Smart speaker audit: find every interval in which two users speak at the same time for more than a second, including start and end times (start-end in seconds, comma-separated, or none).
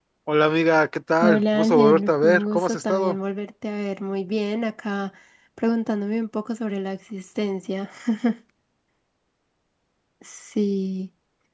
1.2-3.2